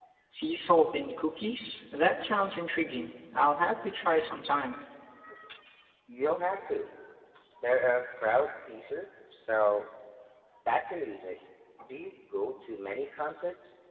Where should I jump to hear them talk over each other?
none

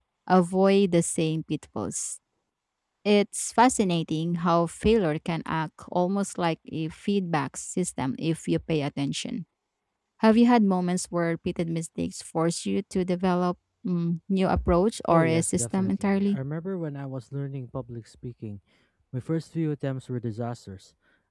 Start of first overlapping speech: 15.1 s

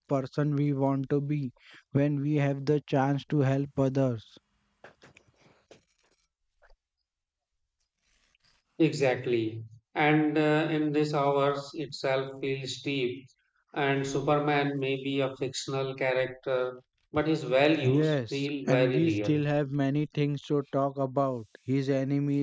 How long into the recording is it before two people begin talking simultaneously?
17.8 s

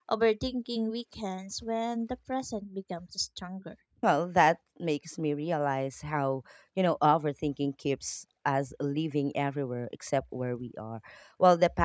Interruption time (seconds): none

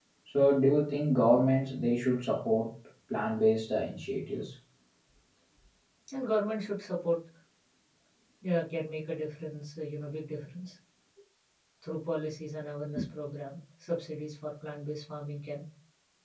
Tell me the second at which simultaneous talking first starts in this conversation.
none

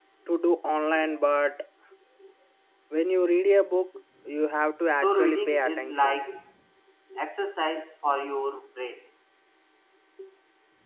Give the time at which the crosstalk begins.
5.0 s

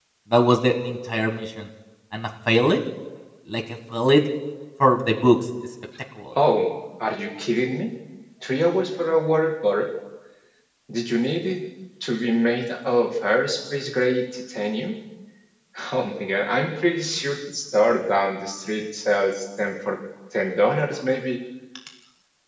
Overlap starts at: none

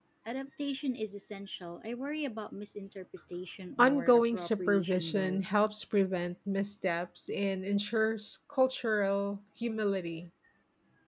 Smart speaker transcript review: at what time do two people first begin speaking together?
3.8 s

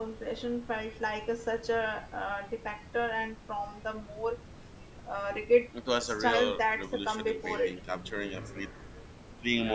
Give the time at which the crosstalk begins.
6.0 s

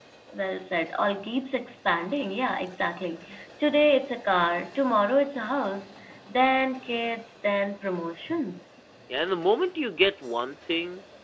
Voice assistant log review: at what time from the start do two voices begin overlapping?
none

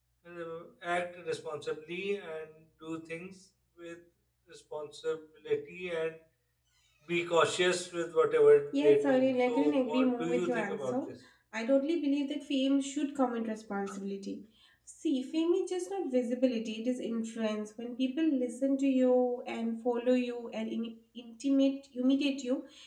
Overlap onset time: 8.7 s

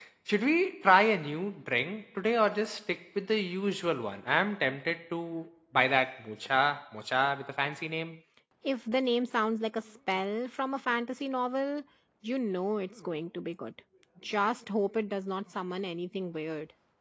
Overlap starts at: none

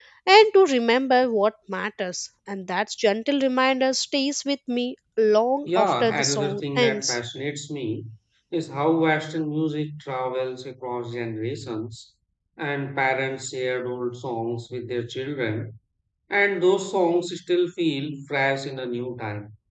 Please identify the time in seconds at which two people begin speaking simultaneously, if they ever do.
5.7 s

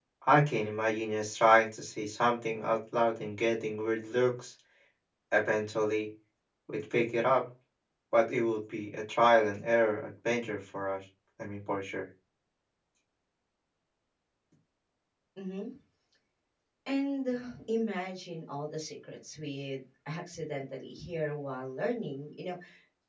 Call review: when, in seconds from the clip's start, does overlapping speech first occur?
none

